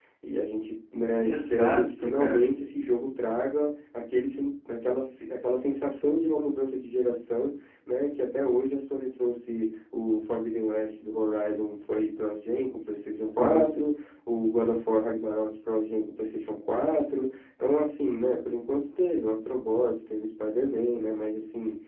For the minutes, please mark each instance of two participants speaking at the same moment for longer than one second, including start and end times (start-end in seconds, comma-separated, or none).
1.2-2.5